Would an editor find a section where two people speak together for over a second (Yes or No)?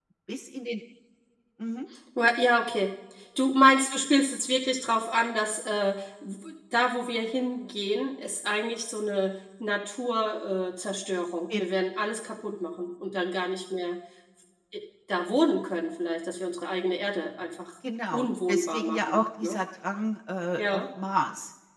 Yes